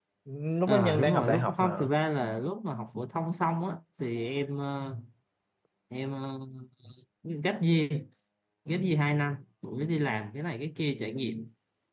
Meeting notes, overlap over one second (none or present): present